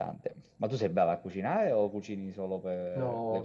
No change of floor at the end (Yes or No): No